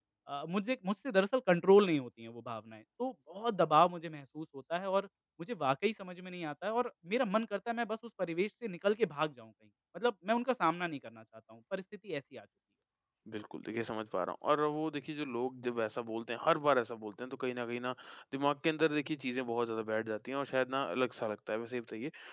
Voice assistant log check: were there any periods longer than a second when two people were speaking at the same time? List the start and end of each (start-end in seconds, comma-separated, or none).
none